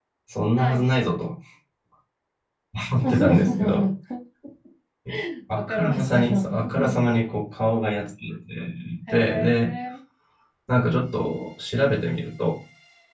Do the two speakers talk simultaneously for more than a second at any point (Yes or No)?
Yes